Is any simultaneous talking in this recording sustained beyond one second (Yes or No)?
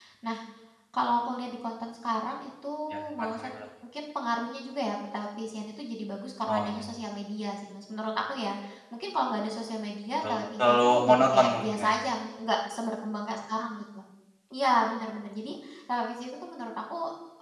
Yes